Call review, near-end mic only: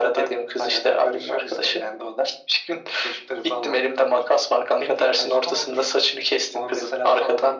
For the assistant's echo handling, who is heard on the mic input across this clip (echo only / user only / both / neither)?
echo only